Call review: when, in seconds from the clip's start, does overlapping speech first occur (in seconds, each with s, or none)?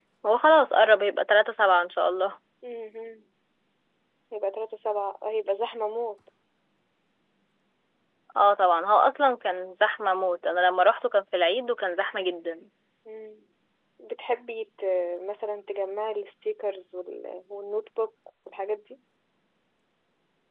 none